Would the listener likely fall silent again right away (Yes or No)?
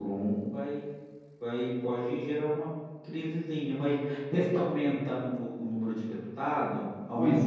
No